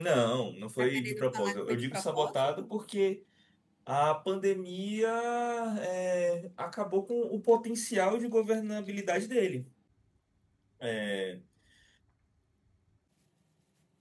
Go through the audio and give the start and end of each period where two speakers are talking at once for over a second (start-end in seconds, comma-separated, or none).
0.8-2.7